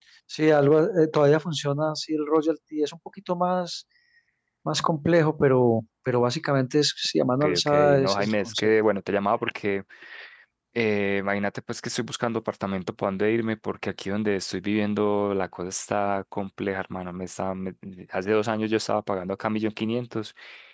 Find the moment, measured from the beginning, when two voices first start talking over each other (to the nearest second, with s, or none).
7 s